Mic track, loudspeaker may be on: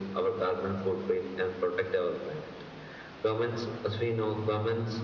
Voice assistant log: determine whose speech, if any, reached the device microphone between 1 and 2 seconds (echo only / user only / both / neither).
echo only